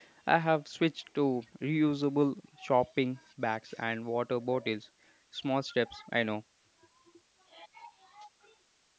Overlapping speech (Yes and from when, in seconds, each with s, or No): No